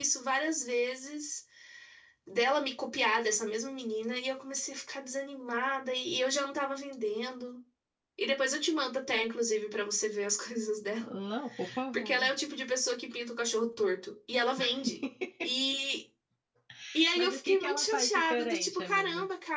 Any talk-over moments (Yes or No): Yes